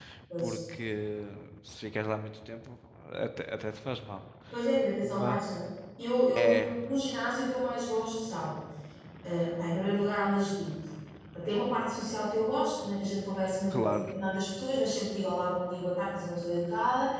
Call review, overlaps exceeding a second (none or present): none